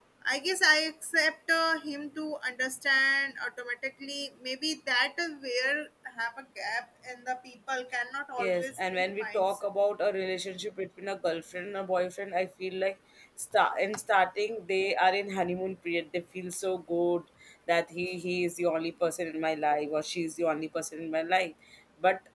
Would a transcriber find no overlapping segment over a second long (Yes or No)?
No